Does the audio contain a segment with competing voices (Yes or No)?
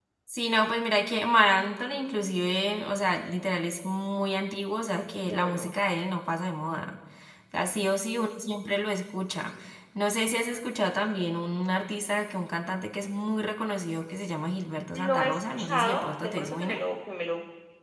Yes